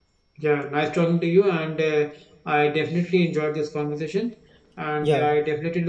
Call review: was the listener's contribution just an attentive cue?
Yes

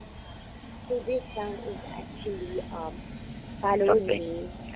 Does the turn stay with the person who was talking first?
Yes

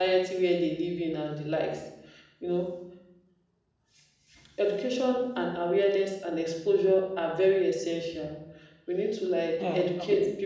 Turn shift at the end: No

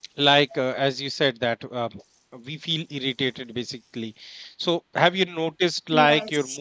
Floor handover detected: No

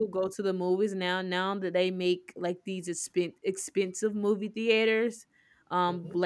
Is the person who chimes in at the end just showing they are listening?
Yes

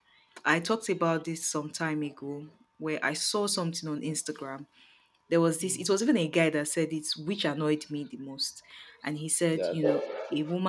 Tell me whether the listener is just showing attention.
Yes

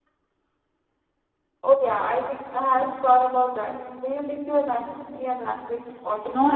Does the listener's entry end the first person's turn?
Yes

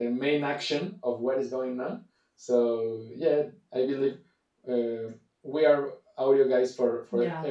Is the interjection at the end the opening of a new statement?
Yes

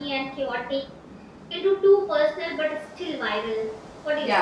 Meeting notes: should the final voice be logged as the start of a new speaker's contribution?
Yes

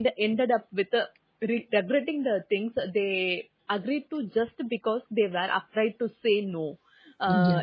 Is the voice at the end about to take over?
No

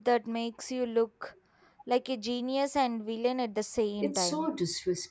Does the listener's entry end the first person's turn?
Yes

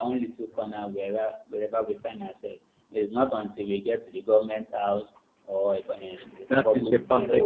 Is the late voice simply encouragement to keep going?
No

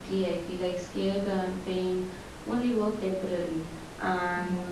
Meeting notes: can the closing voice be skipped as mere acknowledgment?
Yes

